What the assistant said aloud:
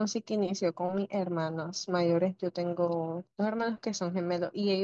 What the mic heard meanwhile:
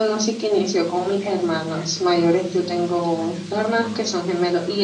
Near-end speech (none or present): present